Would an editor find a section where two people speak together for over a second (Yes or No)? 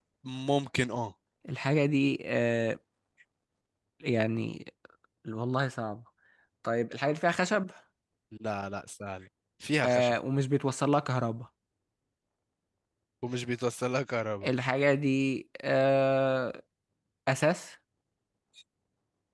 No